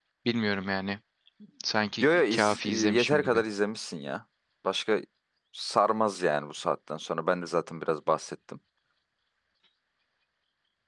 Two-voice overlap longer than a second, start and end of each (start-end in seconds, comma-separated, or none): 2.0-3.4